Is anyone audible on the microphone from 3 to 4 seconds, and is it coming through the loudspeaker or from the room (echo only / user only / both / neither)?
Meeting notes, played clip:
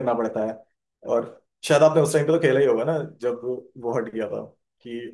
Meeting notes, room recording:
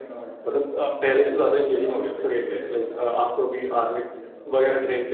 both